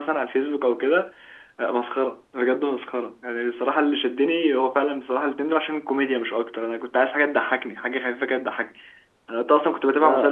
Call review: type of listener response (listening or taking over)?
listening